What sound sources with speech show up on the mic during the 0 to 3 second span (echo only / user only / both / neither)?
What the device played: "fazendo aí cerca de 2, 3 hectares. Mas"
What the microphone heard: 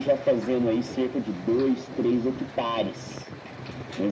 echo only